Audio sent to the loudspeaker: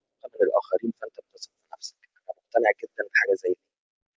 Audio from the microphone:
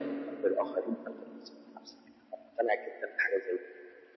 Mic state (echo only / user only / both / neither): echo only